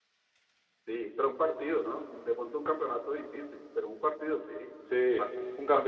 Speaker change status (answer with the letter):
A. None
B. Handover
B